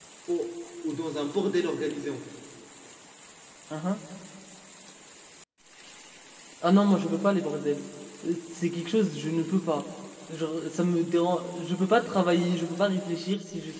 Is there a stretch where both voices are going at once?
No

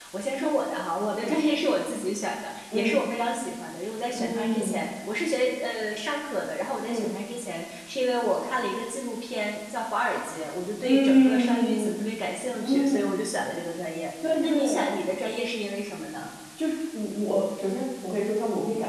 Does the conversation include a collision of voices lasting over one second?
Yes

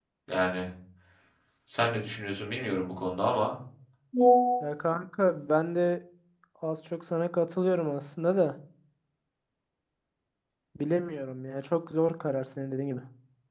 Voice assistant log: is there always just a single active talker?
Yes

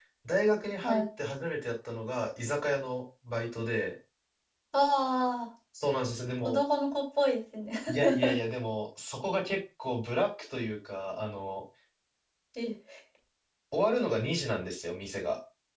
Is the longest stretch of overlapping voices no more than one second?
Yes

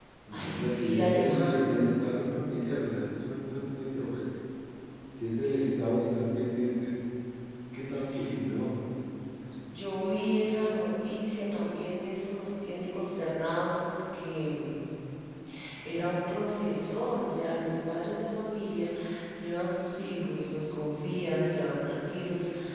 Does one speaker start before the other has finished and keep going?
Yes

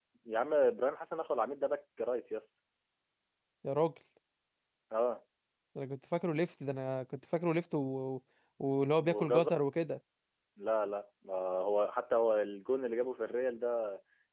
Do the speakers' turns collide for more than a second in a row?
No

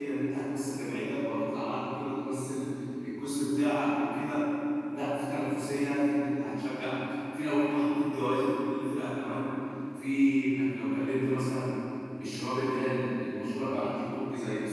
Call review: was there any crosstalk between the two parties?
No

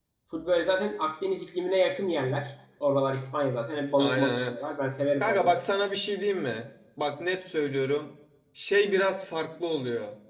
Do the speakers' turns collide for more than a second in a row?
No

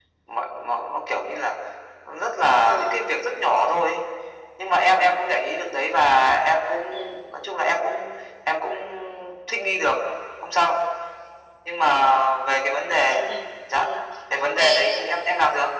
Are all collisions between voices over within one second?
Yes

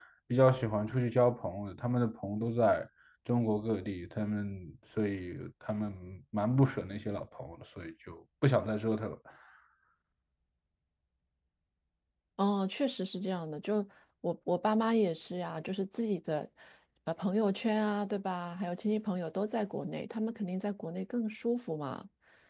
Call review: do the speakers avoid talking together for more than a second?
Yes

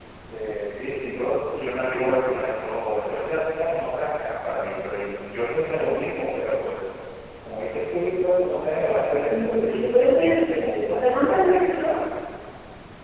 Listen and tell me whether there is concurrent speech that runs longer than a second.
Yes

